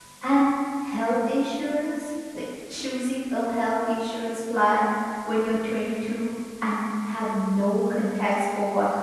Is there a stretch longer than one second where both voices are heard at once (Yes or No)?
No